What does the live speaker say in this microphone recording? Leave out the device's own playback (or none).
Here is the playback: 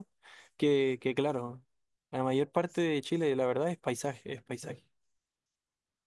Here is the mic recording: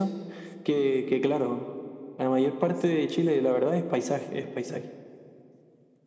none